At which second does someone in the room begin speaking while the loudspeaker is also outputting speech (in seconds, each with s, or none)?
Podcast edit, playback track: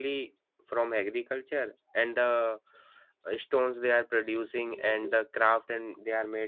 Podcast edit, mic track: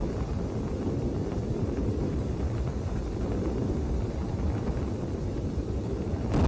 none